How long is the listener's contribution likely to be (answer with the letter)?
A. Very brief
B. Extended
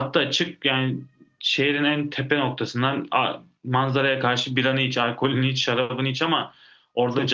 A